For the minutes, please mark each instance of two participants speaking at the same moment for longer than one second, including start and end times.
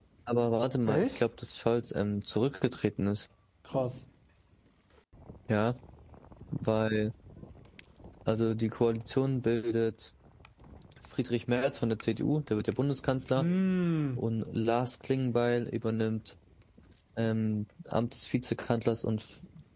none

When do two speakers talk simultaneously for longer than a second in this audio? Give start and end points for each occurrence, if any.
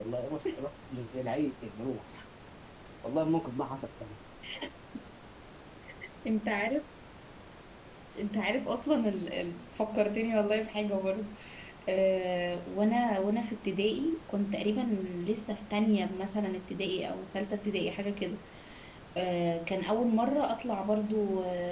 none

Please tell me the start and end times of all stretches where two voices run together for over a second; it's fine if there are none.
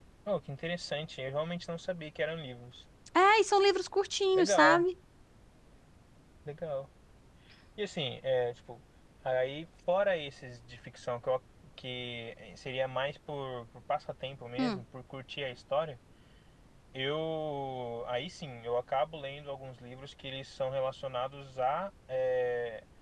none

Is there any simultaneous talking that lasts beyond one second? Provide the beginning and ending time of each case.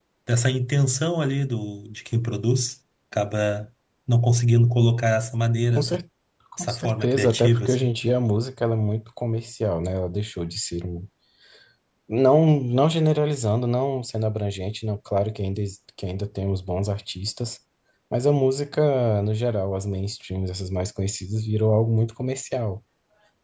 6.6-7.9

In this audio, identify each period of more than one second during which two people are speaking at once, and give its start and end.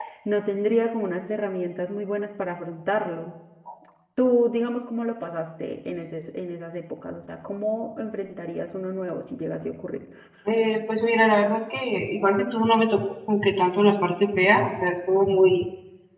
none

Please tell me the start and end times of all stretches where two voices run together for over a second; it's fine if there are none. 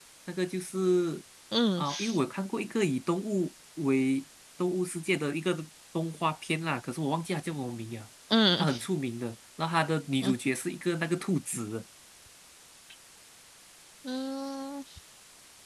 none

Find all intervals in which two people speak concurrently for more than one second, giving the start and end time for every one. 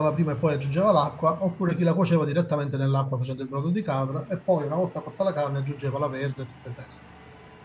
none

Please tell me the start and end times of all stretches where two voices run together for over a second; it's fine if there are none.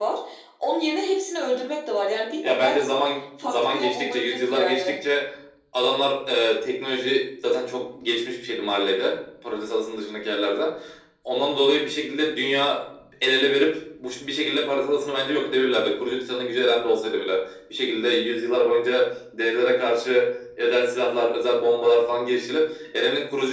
3.4-4.9

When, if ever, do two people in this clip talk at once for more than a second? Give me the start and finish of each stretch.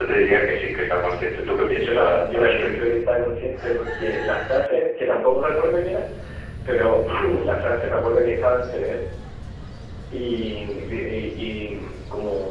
1.7-3.0

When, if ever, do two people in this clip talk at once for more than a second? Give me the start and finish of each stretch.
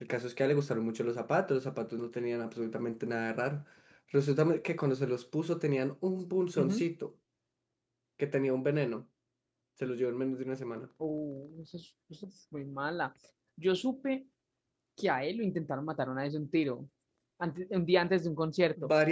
none

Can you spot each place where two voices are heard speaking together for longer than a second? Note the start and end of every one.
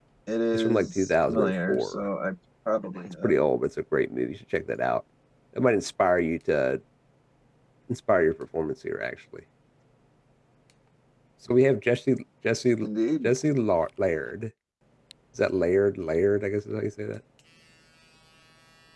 0.5-2.1

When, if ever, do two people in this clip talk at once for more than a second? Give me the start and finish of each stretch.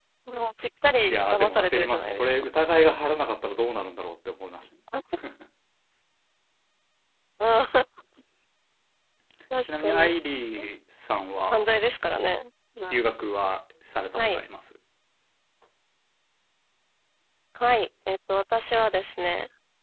1.1-2.4

